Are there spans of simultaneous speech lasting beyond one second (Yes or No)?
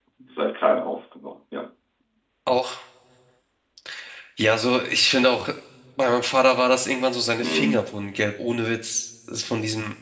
No